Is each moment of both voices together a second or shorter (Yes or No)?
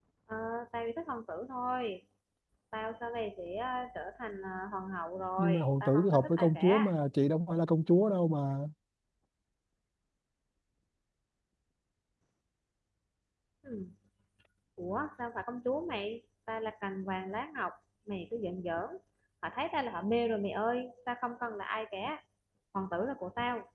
No